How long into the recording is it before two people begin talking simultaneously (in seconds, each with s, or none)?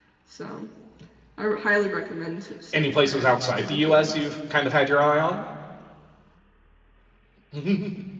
2.7 s